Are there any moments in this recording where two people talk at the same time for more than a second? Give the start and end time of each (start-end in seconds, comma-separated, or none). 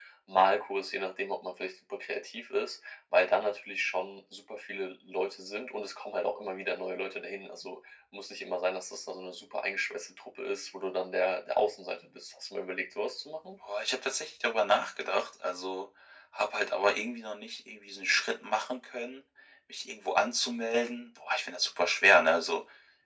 none